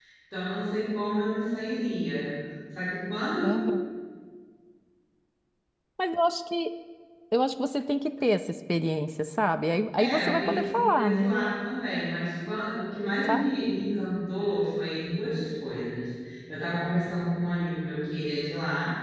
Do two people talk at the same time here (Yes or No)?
Yes